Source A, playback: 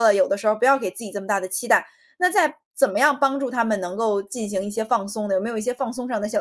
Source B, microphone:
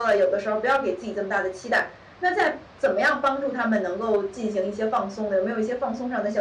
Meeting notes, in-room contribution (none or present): none